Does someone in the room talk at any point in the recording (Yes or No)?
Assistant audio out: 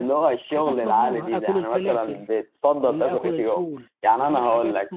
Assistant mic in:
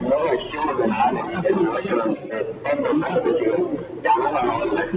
No